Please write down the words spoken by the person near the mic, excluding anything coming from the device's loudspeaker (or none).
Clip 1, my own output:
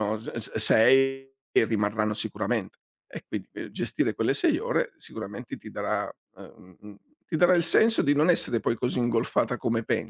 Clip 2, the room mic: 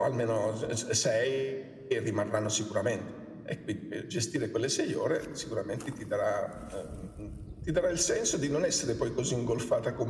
none